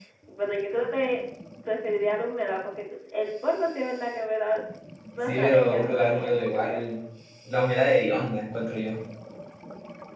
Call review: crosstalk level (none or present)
present